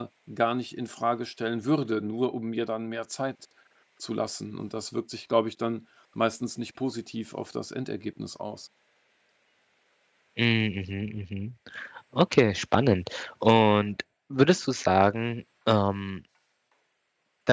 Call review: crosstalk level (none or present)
none